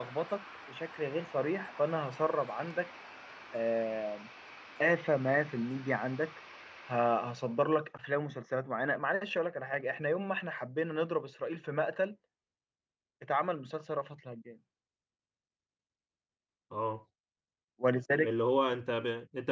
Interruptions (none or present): none